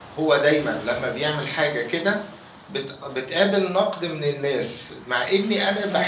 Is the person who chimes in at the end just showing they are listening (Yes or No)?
Yes